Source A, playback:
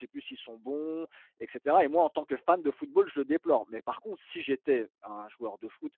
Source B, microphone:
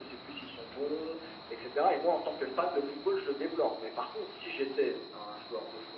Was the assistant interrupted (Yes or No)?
No